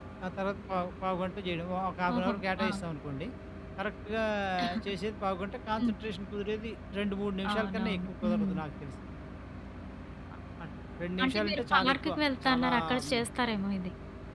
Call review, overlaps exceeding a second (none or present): present